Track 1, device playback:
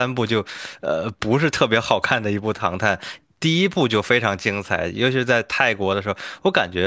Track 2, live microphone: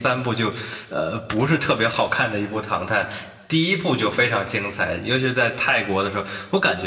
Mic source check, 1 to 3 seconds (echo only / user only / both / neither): echo only